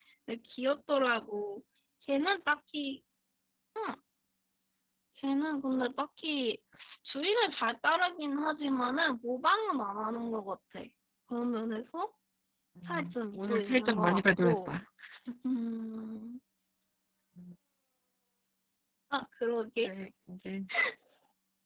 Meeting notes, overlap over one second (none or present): present